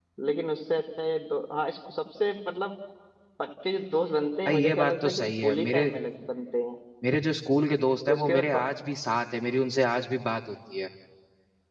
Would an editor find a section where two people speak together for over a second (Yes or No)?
Yes